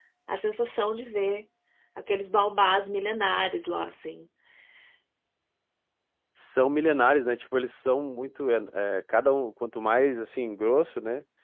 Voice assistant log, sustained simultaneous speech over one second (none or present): none